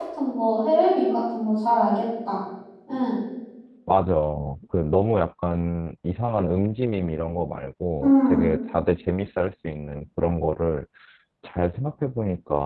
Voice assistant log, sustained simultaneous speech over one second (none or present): none